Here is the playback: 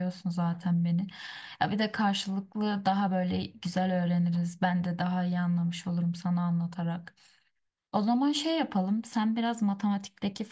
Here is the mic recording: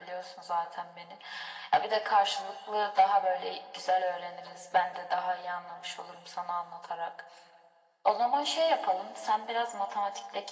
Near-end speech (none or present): none